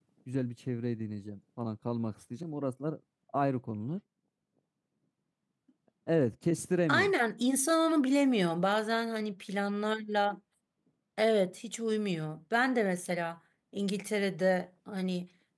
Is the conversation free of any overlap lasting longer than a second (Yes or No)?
Yes